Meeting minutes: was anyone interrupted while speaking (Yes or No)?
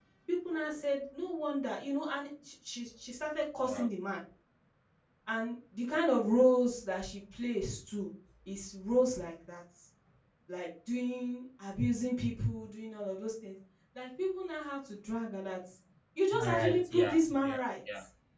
Yes